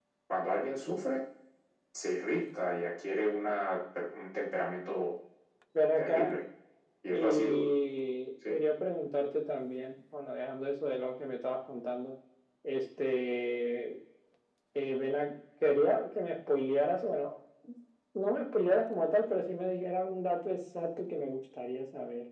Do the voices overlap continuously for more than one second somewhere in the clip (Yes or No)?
No